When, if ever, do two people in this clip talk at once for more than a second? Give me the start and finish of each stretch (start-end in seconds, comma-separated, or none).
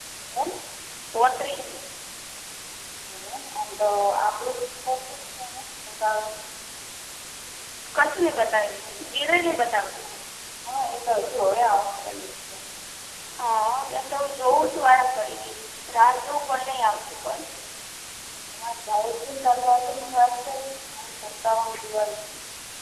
none